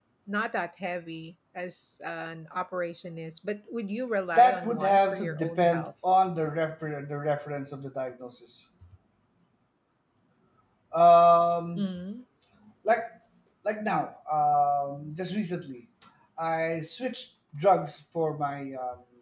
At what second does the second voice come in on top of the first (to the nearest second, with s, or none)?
4 s